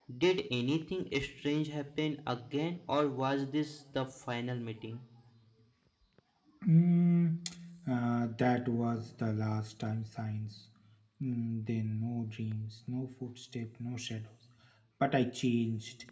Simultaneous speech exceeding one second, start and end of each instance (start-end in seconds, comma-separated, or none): none